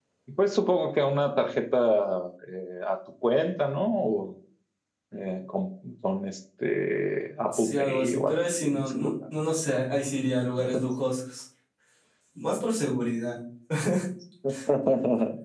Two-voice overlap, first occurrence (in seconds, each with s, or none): 7.5 s